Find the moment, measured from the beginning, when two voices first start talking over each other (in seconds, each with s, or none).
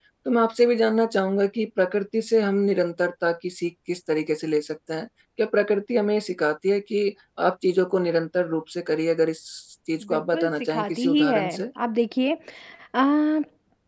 10.1 s